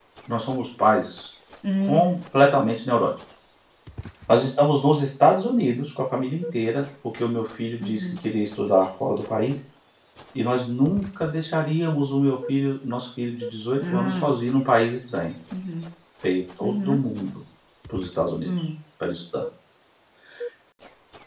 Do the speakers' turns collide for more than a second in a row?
No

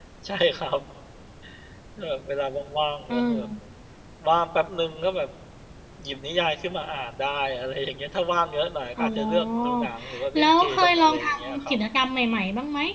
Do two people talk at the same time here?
Yes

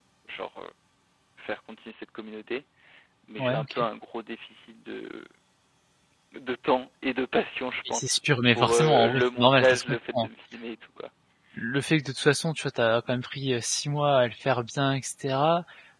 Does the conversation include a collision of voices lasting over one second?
Yes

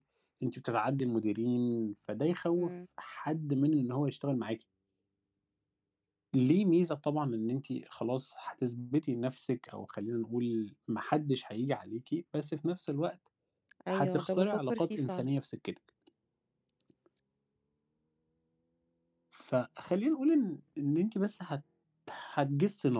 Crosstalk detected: Yes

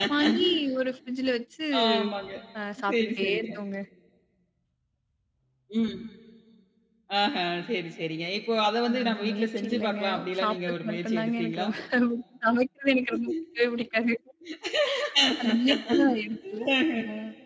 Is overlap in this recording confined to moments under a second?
No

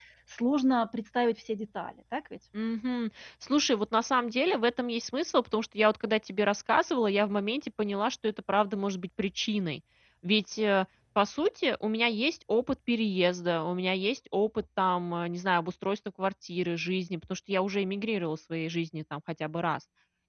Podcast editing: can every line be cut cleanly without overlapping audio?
Yes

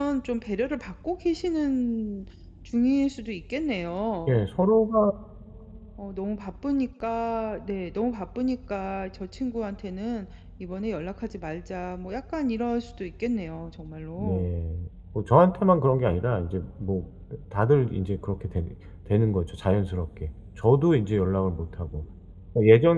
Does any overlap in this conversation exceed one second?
No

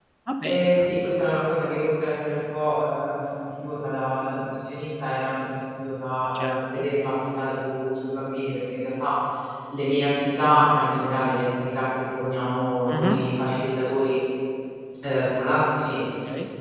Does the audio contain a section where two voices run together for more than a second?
No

